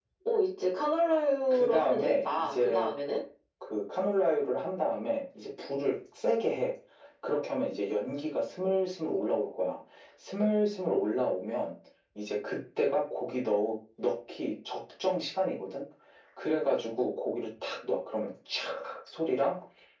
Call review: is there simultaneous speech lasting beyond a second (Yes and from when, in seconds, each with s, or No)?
Yes, from 1.5 s